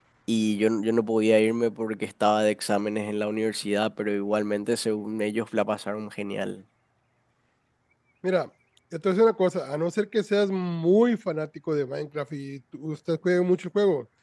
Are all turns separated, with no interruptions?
Yes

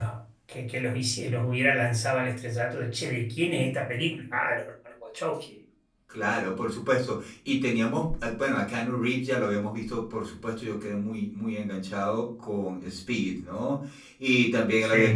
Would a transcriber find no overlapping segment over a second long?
Yes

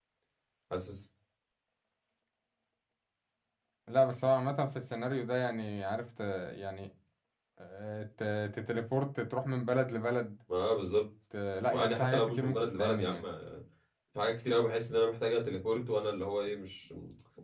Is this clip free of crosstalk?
No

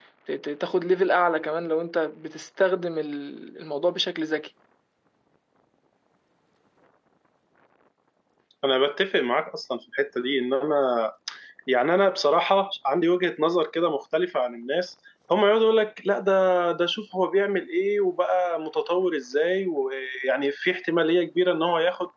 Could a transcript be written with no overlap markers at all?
Yes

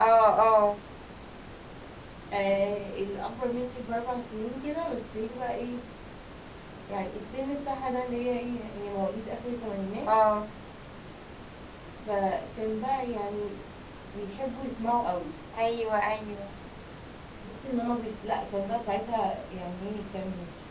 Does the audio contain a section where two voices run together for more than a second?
No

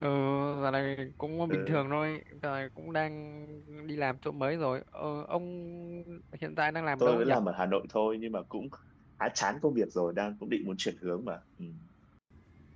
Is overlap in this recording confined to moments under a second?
Yes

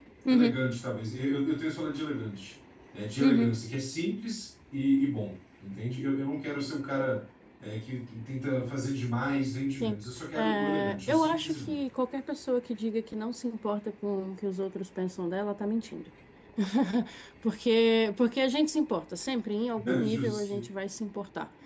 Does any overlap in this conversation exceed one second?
Yes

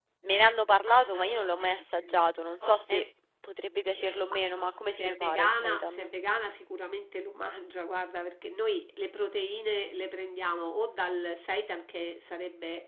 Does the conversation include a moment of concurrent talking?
Yes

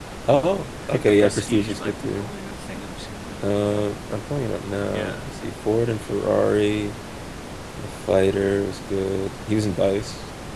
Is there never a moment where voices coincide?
No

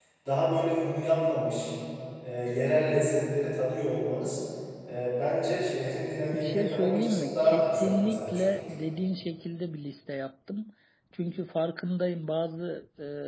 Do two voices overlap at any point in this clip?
Yes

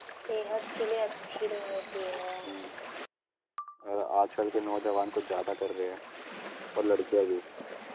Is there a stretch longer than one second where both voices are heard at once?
No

